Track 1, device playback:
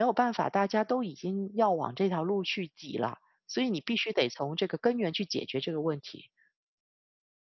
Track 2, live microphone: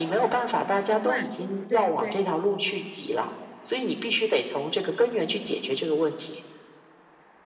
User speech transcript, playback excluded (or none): 习惯，对对，